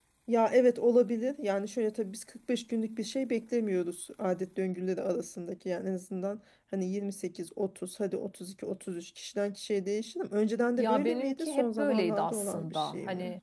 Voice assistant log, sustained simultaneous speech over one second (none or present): present